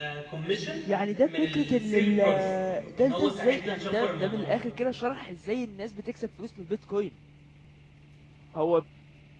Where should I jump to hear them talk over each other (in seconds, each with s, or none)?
1.2 s